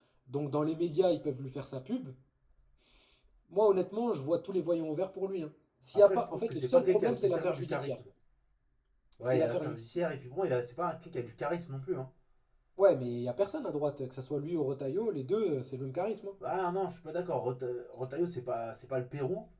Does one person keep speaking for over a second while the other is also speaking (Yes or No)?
Yes